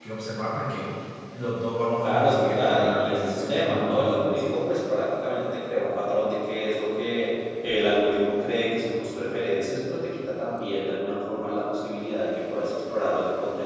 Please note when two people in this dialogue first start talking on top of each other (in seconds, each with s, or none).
2.0 s